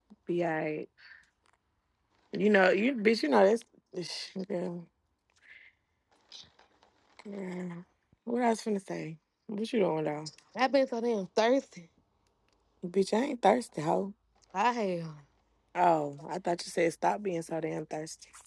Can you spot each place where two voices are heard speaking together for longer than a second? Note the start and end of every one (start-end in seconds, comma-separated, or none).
none